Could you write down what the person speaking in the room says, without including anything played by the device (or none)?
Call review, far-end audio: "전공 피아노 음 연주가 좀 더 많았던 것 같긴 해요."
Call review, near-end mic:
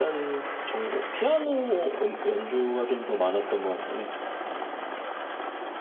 none